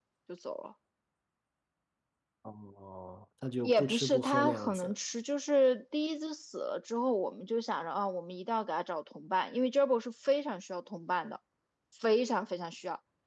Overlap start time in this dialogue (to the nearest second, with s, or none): 4 s